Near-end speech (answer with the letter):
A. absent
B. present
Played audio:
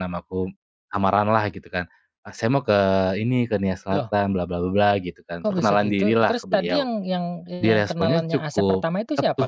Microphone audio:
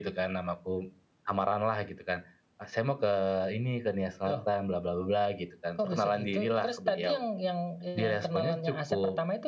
A